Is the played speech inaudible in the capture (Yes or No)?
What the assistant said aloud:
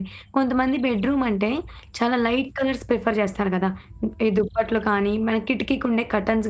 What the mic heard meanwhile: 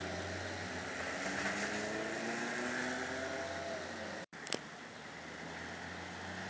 Yes